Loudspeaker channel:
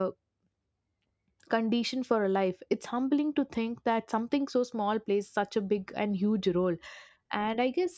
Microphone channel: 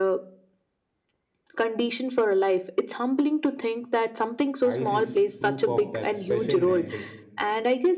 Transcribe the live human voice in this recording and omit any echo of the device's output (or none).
Ice is proof of that special nature.